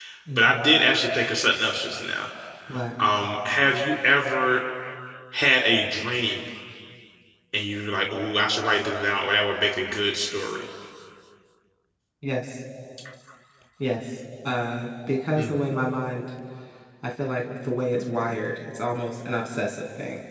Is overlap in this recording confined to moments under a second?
Yes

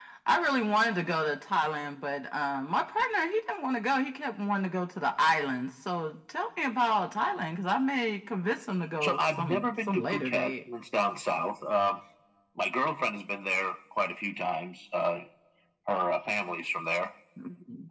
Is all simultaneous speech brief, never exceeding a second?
No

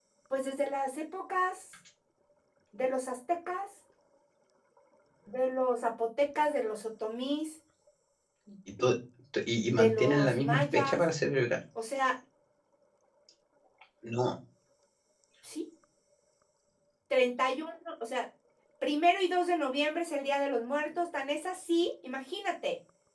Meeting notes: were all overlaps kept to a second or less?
No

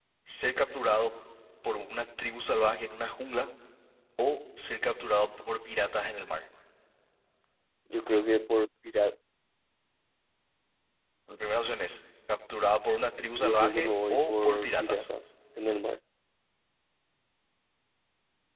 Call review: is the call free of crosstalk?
No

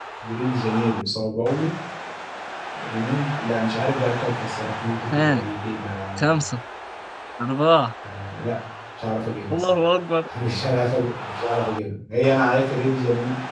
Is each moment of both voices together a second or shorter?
Yes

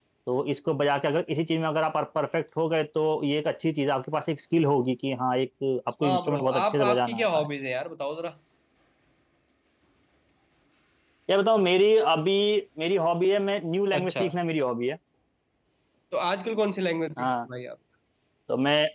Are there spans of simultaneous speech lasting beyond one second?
Yes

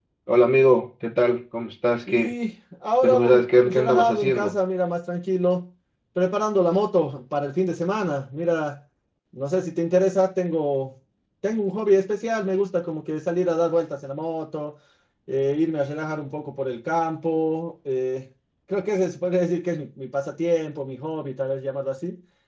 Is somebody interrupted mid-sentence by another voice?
Yes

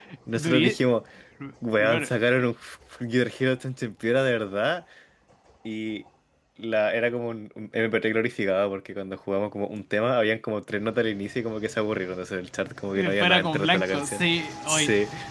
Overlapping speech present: Yes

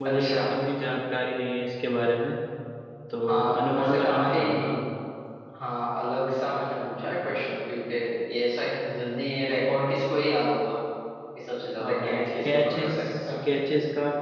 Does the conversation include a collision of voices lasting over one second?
Yes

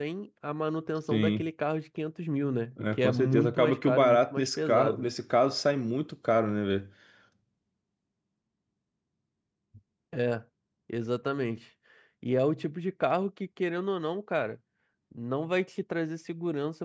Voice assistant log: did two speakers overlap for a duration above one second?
Yes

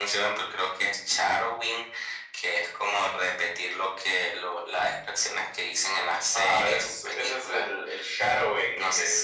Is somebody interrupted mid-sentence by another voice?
Yes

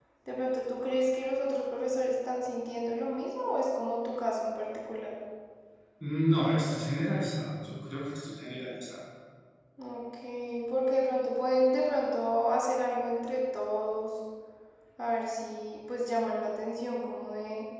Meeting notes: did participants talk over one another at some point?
No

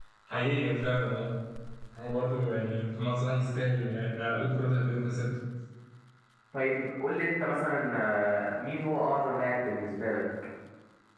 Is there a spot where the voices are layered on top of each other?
No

